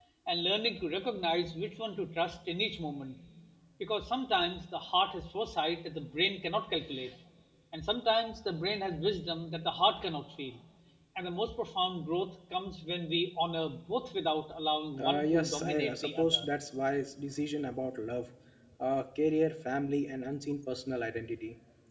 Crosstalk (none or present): present